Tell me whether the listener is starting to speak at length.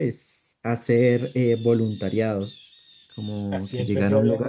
Yes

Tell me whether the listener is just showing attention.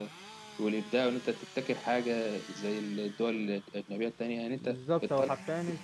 No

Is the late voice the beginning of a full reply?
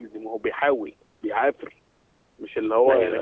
No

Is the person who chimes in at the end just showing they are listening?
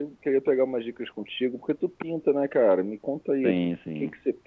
Yes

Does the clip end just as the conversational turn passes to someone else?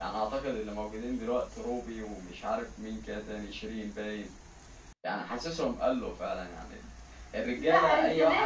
Yes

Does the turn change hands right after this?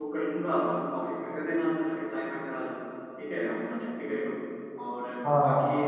No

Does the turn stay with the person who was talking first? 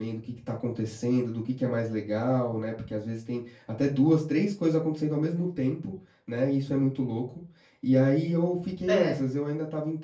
Yes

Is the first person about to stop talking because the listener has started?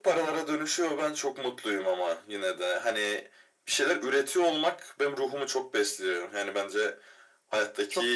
No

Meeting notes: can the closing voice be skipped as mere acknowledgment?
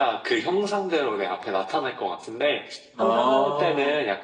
Yes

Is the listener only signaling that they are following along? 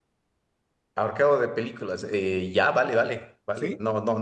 Yes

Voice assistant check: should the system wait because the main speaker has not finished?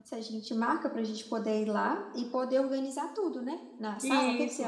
No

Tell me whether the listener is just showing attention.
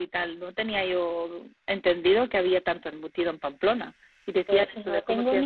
No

